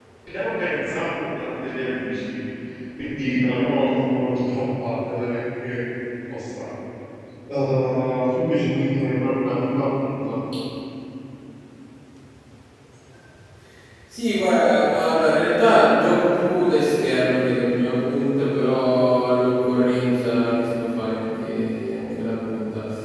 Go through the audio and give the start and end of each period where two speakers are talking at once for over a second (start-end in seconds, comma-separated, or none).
none